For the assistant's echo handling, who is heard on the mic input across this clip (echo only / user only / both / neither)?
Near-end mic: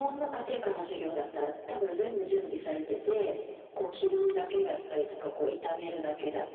echo only